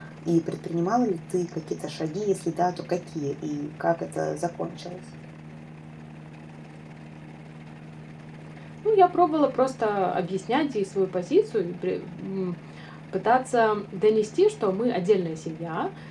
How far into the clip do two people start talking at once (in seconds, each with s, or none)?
none